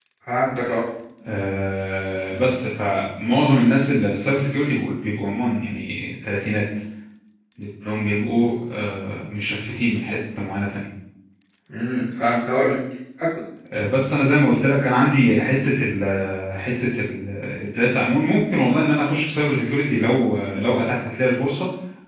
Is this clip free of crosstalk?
Yes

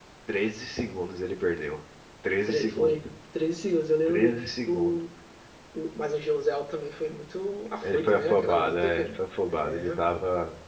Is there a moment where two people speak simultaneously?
Yes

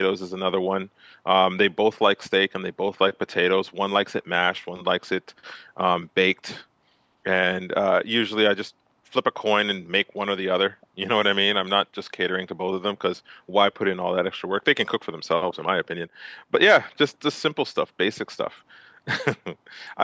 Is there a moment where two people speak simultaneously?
No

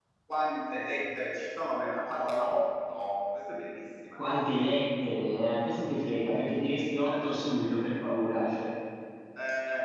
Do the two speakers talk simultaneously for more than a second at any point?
No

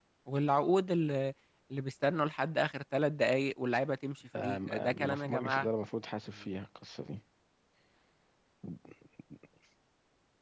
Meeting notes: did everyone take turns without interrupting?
No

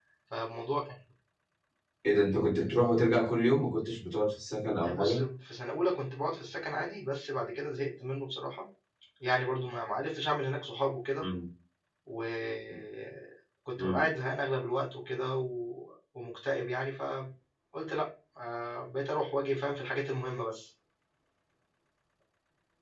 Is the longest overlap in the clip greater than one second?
No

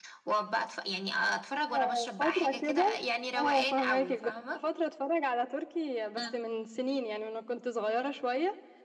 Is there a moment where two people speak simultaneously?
Yes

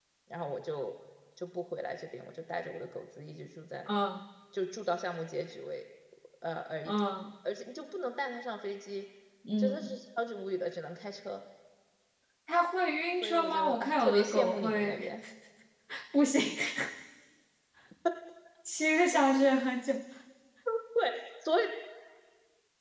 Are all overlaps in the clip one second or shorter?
No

